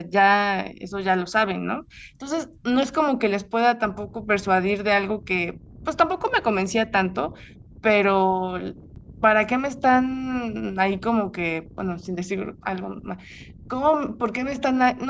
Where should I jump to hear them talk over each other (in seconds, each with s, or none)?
none